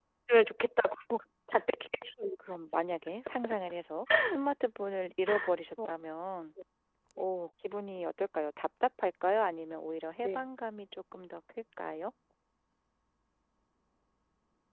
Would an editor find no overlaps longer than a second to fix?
Yes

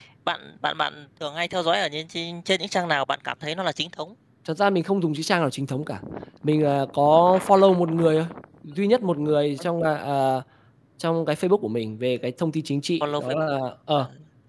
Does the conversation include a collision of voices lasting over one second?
No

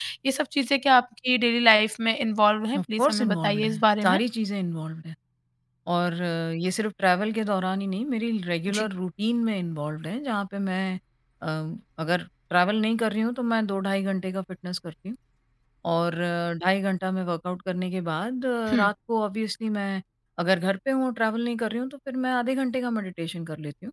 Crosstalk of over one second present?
Yes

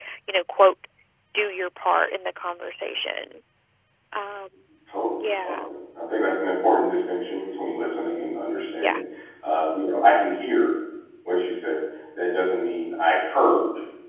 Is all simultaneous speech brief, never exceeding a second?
Yes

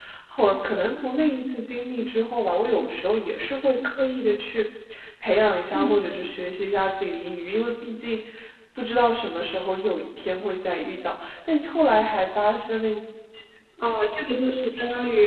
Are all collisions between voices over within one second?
Yes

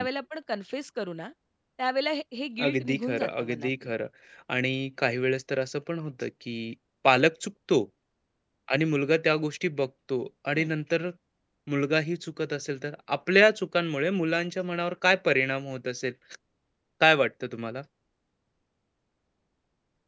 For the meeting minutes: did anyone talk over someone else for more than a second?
Yes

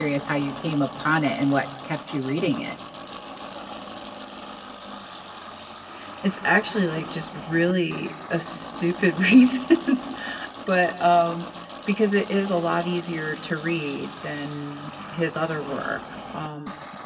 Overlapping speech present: No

